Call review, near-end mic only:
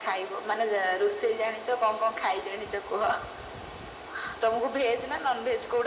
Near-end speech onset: none

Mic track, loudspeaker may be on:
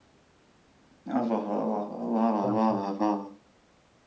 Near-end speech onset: 2.4 s

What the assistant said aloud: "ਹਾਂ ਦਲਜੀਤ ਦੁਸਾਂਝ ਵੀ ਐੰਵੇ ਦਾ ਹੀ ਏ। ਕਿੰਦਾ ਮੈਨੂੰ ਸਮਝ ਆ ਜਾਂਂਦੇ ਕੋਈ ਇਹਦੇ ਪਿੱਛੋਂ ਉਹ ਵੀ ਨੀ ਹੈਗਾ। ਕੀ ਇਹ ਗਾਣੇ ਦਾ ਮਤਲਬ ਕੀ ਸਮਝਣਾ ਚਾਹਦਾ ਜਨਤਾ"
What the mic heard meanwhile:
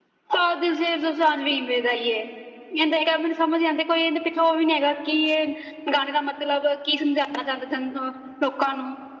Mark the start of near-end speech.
none

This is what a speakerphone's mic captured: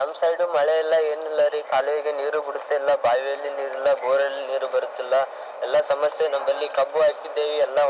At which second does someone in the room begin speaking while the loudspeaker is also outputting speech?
none

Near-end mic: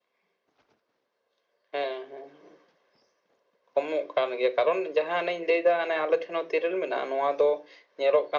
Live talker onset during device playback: none

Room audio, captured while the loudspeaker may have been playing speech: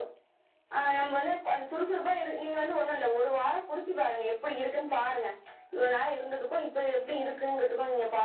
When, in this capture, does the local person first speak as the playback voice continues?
none

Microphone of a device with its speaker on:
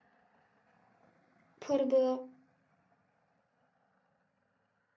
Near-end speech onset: 1.6 s

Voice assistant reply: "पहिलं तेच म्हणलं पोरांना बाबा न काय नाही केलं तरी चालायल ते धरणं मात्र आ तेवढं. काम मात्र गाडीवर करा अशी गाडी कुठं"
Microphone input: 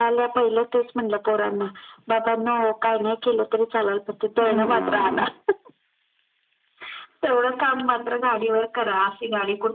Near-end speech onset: 4.4 s

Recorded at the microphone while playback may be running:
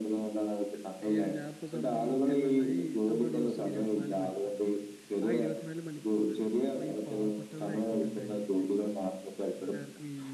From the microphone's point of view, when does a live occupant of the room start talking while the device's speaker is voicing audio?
1.0 s

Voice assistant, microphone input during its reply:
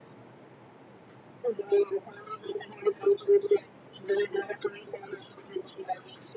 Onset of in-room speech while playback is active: none

